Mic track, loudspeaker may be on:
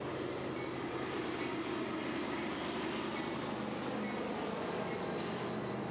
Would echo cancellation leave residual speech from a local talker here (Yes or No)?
No